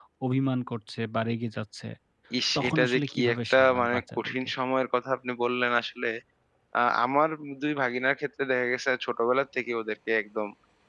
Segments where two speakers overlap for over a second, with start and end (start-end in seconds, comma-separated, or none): 2.6-4.5